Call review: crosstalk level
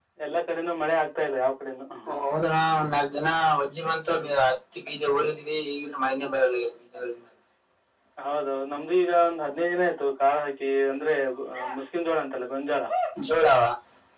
none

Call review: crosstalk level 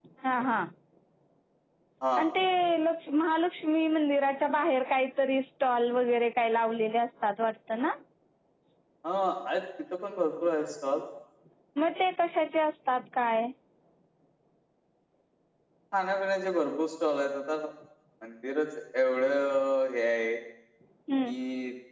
none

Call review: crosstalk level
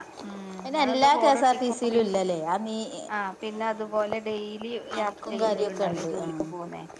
present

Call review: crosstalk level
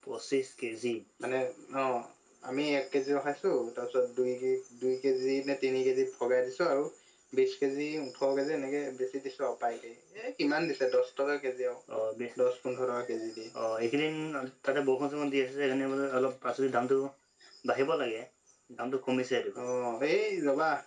none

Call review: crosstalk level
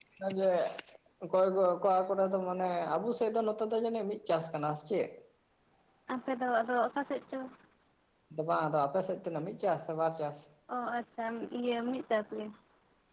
none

